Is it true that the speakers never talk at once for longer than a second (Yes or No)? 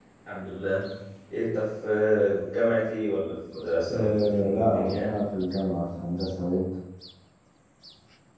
No